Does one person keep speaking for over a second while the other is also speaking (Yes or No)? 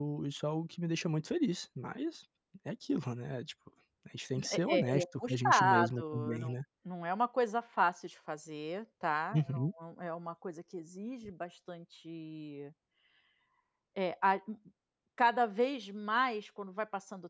Yes